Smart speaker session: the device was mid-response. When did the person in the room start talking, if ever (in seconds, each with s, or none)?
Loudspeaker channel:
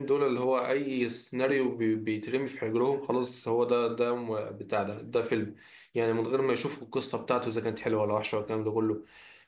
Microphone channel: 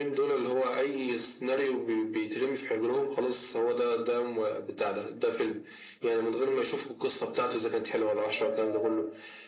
8.3 s